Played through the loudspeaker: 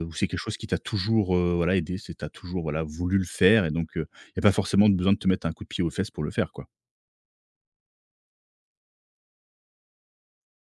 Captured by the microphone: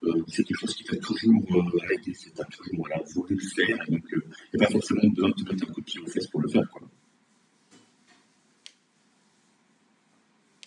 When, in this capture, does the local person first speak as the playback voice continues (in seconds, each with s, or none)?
none